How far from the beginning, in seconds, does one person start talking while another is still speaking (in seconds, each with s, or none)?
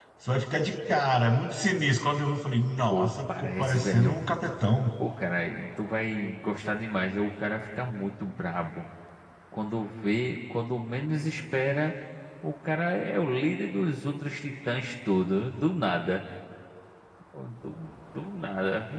2.9 s